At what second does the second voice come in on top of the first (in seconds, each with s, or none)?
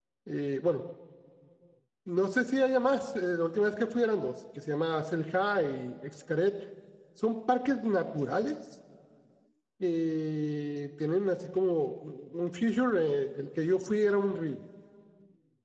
none